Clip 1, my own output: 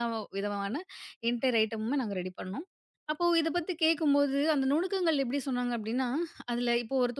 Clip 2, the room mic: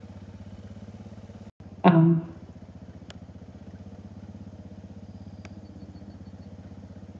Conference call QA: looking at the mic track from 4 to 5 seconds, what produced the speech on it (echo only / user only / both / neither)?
neither